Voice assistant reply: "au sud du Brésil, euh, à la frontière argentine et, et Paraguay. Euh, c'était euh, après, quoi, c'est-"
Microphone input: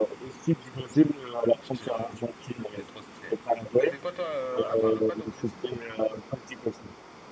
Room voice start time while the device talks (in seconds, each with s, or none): 1.6 s